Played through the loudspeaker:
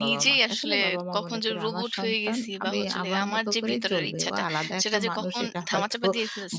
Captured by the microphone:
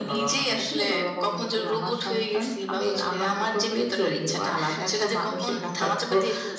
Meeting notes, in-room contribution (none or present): none